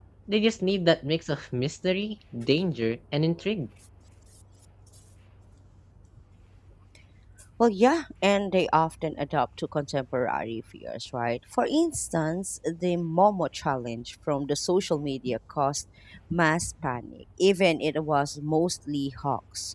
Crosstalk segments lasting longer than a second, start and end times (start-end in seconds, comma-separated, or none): none